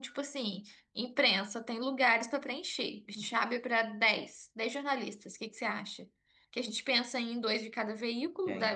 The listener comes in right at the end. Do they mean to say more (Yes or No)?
No